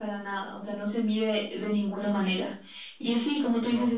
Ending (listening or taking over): listening